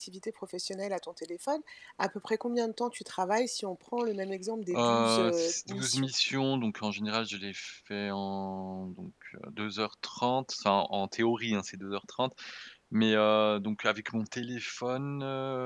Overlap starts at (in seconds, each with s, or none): 4.7 s